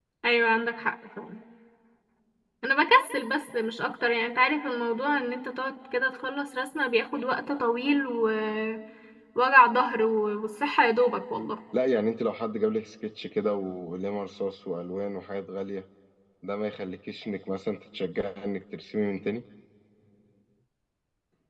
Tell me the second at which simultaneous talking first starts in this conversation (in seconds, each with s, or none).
none